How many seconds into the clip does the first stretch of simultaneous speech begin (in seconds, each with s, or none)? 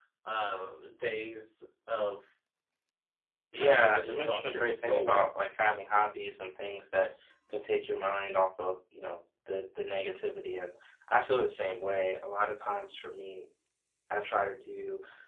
3.5 s